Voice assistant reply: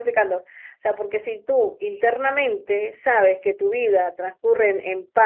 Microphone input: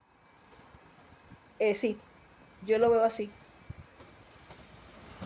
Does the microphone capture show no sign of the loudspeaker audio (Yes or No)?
Yes